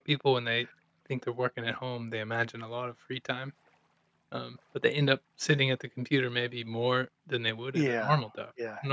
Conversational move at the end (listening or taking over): taking over